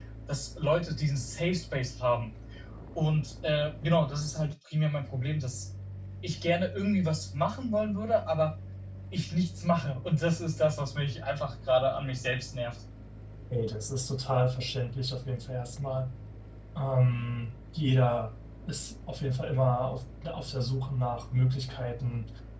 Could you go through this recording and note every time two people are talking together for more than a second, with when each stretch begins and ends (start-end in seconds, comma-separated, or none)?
none